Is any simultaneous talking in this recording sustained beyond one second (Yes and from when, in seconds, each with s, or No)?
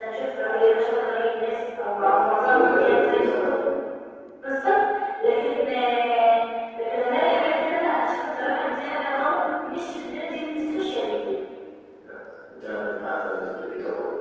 Yes, from 2.0 s